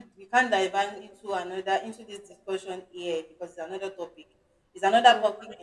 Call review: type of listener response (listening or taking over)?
listening